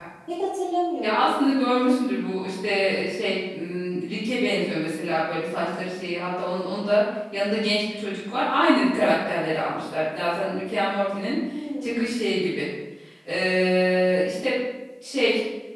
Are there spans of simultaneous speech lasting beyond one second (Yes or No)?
No